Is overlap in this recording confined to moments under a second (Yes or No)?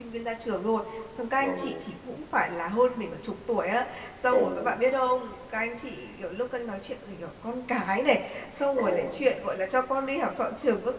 Yes